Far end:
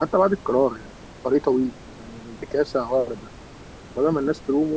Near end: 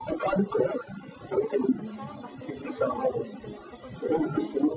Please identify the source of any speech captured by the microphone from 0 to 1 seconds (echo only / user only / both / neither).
echo only